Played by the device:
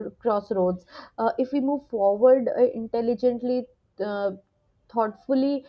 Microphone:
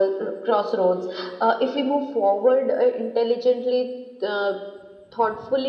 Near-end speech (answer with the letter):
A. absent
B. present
A